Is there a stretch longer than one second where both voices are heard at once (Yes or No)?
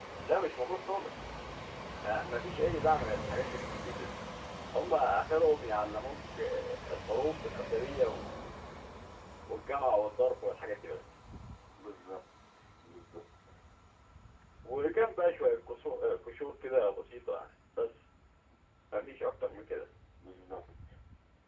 No